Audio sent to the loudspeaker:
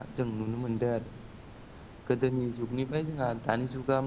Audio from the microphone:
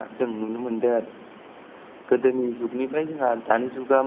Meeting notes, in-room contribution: none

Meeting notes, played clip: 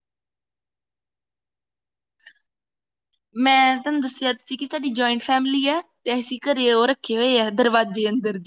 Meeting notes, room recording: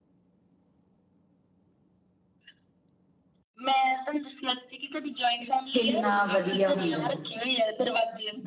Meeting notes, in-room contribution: present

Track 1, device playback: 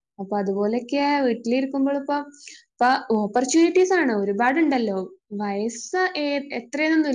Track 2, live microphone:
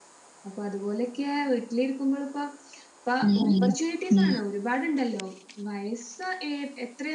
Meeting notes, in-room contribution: present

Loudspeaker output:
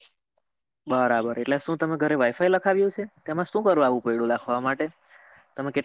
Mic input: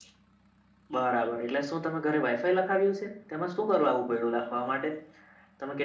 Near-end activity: none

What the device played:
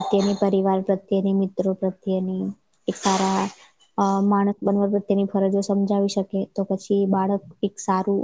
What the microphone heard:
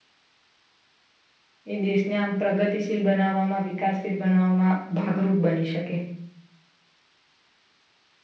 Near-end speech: present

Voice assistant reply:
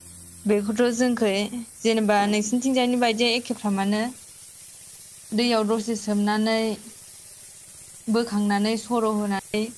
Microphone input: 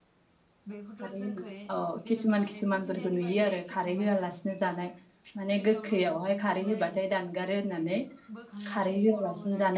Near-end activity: present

